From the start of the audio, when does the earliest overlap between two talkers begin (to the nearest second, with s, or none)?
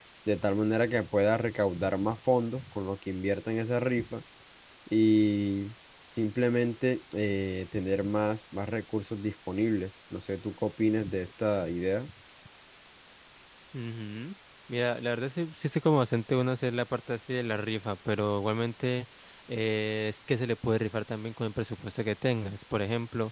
none